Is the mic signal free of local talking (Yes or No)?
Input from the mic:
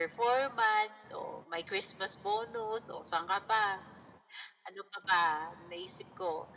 Yes